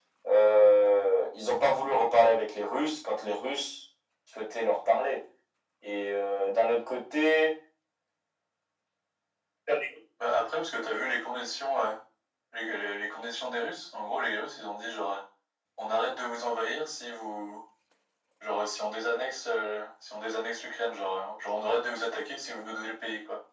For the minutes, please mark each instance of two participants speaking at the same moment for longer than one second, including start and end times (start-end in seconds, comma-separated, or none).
none